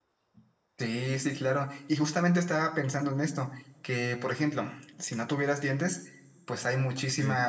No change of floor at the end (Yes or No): Yes